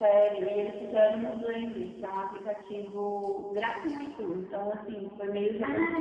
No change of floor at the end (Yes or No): No